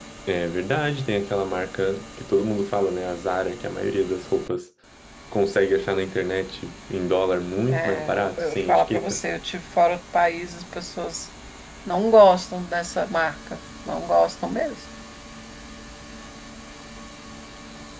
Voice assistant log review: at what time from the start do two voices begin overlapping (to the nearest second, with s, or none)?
8 s